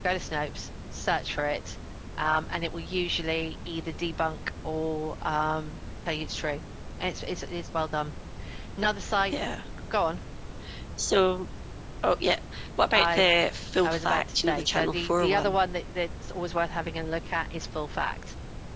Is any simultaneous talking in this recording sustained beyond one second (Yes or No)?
Yes